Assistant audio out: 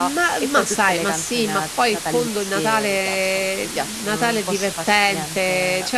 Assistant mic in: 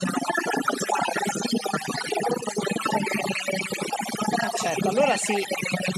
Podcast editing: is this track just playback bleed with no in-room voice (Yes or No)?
No